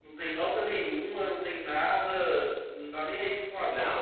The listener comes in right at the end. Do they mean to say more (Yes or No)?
Yes